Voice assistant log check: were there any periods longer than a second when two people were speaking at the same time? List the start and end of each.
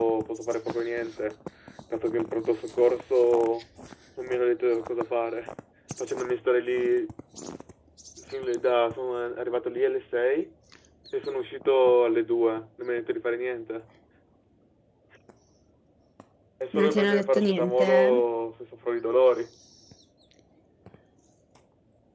16.7-18.2

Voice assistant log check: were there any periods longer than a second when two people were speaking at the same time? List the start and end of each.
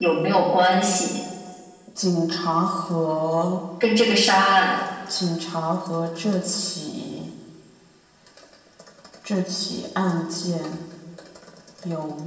none

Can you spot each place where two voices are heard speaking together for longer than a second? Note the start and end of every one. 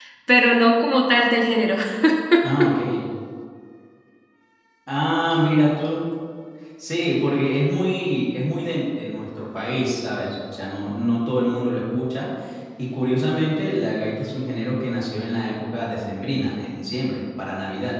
none

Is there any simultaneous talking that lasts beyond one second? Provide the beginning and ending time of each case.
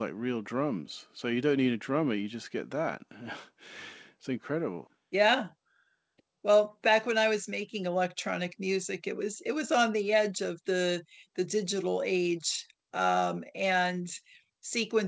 none

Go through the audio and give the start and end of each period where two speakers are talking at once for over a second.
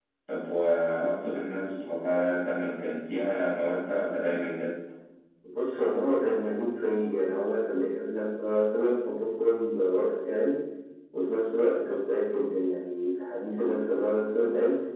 none

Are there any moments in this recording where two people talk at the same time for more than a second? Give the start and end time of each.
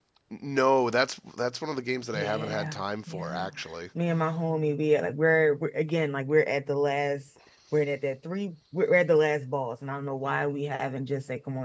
2.1-3.5

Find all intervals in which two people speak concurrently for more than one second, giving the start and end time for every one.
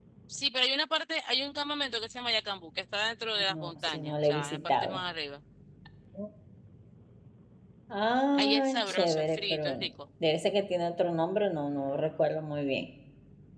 3.6-5.0, 8.3-9.9

